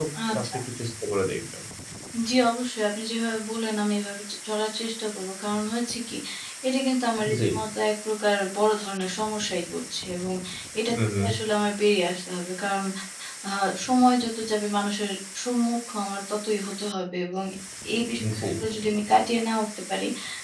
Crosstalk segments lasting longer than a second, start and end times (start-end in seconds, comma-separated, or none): none